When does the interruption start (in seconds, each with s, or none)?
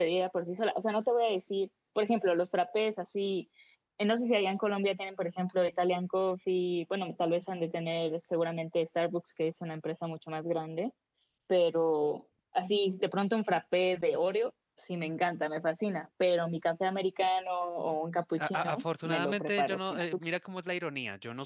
18.4 s